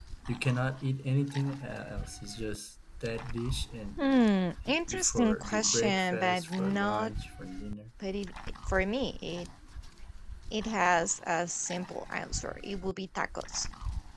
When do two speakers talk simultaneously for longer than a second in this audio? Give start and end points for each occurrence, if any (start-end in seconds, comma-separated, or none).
4.7-7.1